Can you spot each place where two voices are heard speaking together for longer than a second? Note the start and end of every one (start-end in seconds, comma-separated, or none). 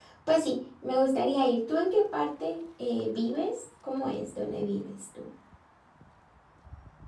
none